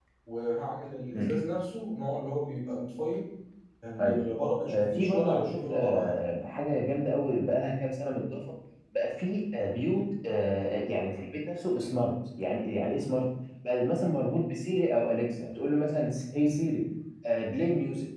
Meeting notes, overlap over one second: present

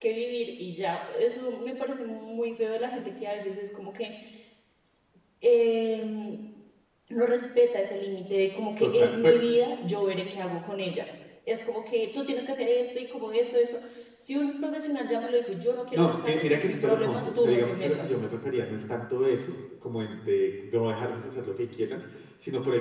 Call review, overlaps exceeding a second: present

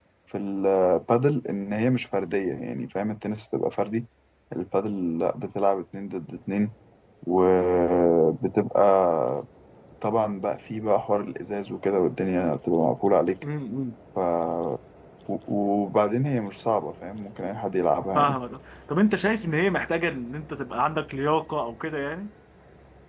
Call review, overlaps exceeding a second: none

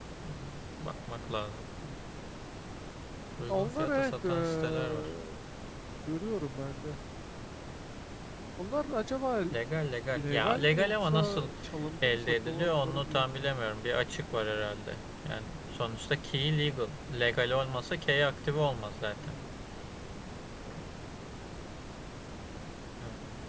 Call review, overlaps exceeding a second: present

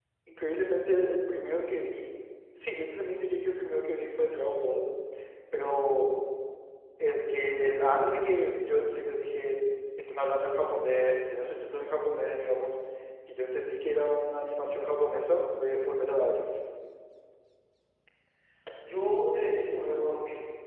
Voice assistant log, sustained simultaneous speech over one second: none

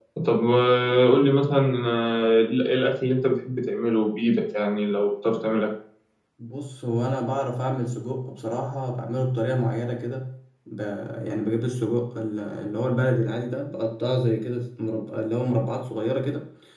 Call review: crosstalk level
none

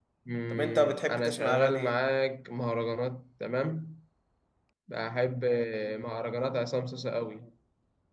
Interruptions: present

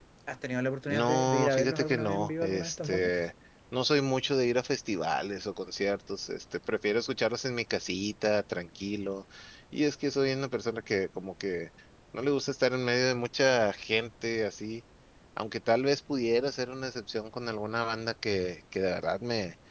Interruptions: present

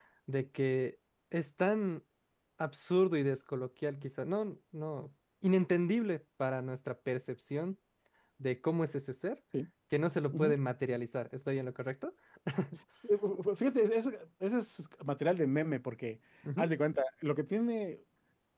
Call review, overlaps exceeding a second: none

